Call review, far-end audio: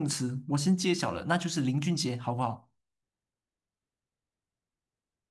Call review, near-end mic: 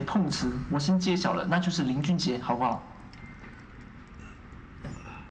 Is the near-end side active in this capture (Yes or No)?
No